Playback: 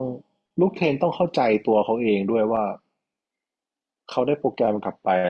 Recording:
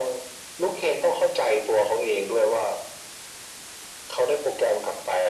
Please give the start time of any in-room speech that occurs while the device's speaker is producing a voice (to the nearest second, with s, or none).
none